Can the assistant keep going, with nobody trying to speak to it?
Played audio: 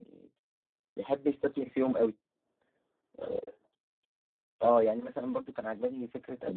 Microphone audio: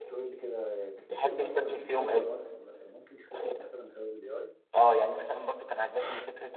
No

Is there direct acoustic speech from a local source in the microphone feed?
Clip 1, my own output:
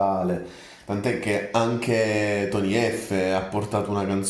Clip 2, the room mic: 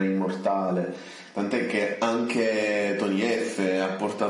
No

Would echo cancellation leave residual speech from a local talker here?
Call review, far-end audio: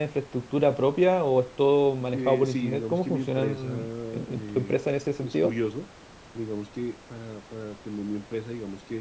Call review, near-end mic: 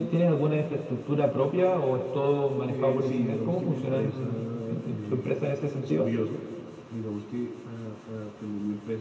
No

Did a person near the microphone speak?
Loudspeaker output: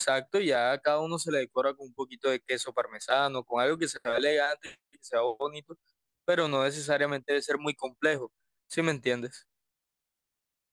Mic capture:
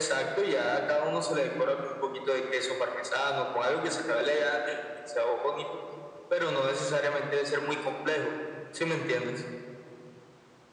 No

